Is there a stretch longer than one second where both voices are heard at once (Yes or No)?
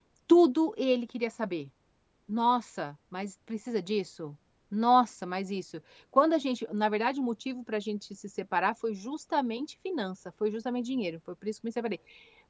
No